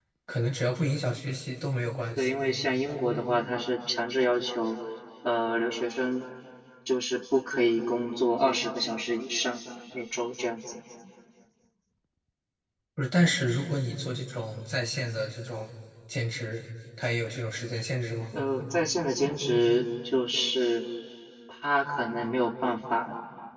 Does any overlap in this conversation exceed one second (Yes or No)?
No